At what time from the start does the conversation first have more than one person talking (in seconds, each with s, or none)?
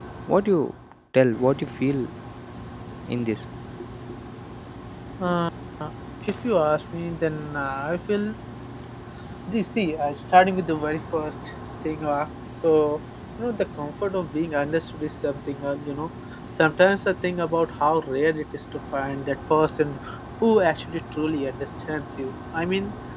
none